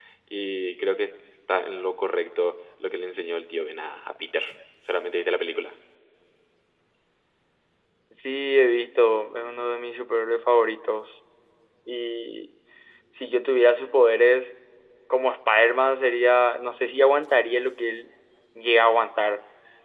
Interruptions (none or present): none